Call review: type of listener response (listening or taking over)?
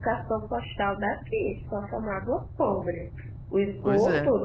listening